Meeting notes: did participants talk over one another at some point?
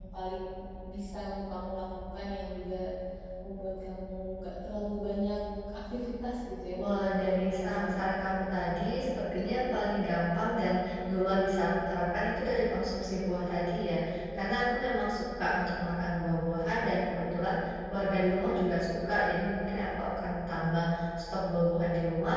Yes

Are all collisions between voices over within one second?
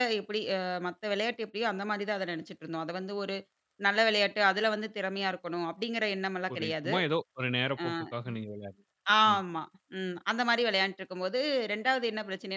Yes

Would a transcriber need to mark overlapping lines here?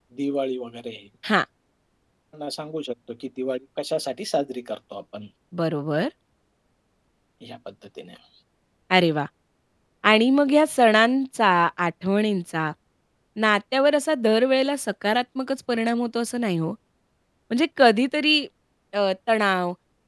No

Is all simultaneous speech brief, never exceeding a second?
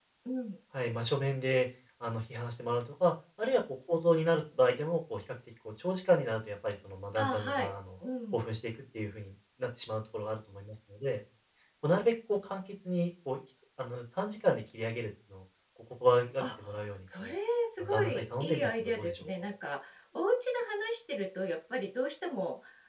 No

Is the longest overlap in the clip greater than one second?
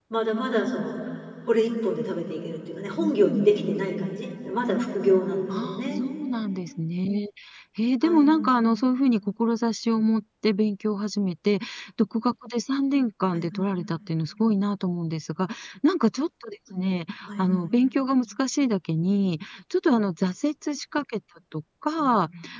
No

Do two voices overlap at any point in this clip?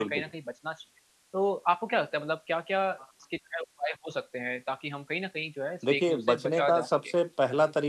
Yes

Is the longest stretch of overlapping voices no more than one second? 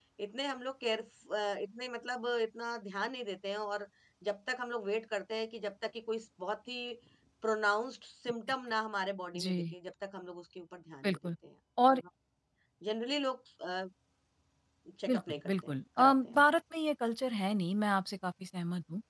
No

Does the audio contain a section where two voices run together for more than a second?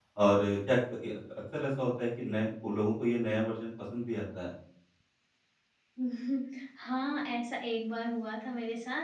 No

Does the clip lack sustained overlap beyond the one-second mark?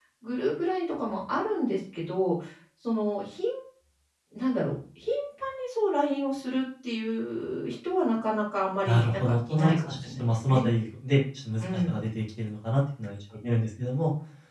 No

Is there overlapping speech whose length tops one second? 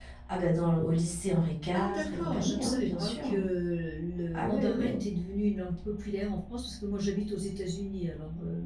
Yes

